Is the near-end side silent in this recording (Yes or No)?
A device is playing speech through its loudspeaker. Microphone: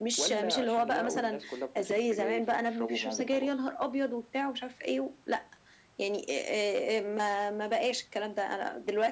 Yes